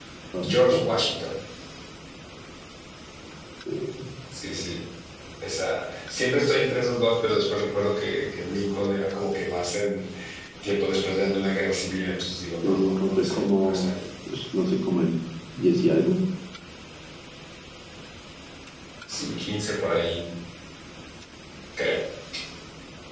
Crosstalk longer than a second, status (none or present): present